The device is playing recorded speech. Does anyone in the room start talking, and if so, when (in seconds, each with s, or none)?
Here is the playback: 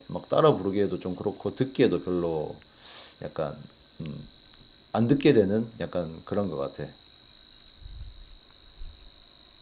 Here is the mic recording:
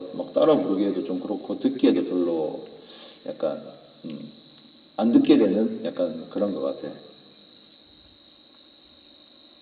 none